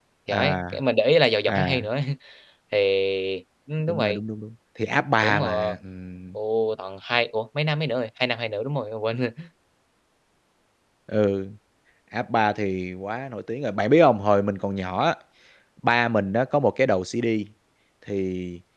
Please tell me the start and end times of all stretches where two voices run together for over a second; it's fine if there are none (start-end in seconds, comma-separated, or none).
none